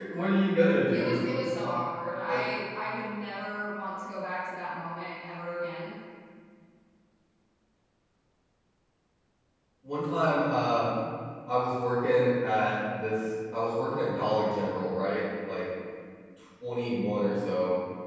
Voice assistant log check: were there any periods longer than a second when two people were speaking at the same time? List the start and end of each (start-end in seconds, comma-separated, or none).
none